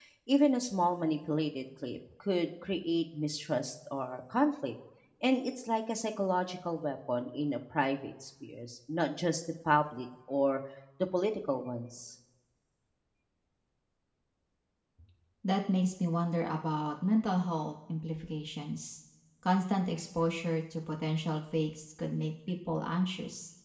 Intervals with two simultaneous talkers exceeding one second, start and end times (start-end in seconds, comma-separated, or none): none